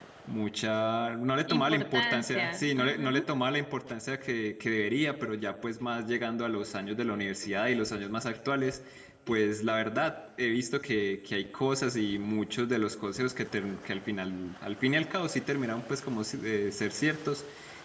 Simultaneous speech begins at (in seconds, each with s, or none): 1.5 s